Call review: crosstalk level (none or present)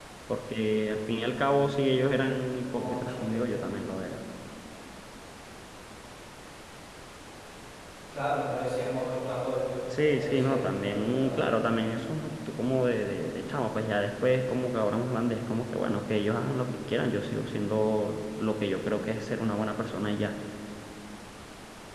present